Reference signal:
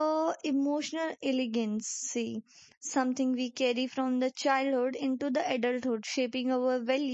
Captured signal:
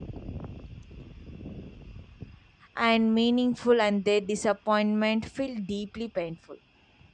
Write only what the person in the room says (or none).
and meaningful and their disappointment feel deeply painful